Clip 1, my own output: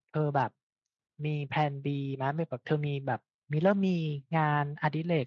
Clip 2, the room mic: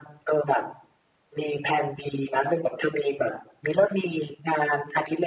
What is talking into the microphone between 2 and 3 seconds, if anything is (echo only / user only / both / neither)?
echo only